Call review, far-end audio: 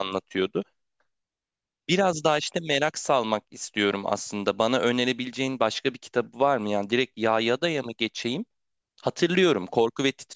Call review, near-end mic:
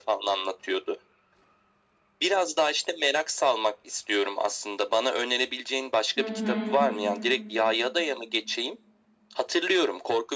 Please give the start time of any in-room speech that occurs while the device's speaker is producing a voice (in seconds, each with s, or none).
6.2 s